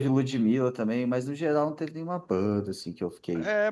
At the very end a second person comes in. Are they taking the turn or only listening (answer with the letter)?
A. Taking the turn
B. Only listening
A